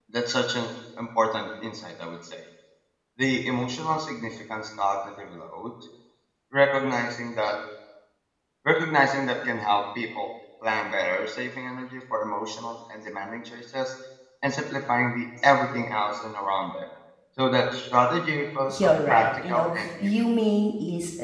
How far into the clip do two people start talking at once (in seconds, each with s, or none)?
18.7 s